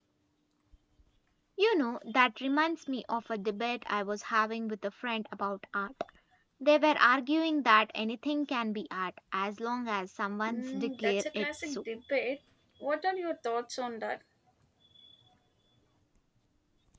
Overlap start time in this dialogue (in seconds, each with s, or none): 10.5 s